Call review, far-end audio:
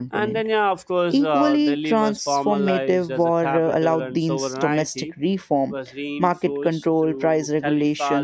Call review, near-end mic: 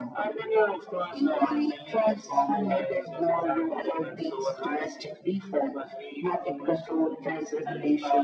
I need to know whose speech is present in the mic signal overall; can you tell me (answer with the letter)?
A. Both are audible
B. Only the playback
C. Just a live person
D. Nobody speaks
B